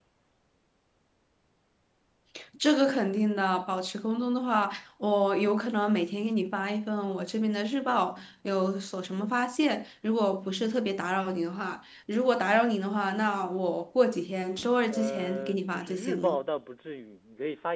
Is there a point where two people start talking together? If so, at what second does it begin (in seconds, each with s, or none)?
14.9 s